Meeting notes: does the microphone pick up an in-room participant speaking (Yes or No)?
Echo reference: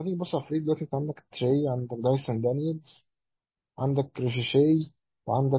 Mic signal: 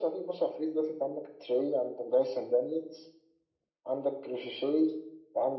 No